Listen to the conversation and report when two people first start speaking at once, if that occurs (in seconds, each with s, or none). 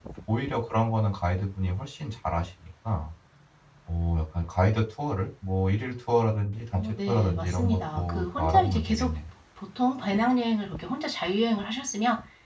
6.8 s